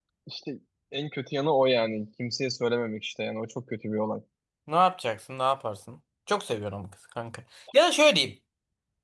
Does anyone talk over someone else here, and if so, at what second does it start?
none

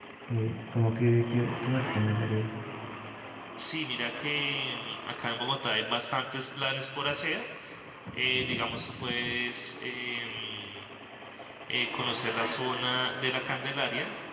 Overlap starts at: none

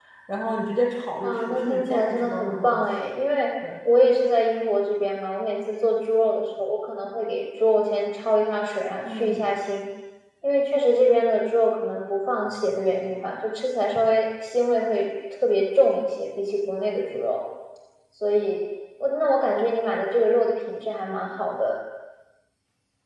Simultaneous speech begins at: 1.2 s

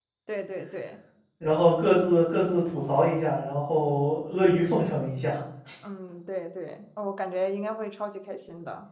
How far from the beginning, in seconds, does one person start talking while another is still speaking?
none

